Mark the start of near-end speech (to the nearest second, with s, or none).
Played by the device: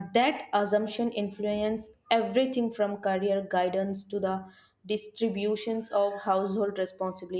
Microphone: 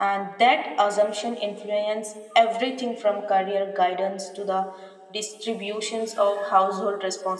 none